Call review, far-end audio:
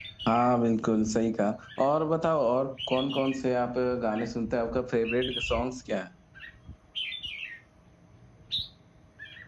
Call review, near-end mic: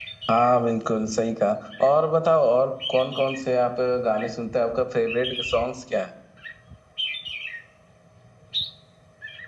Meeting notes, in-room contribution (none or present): none